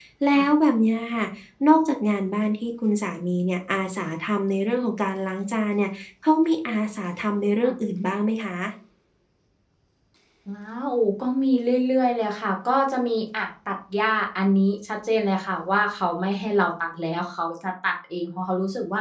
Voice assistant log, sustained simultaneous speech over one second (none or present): none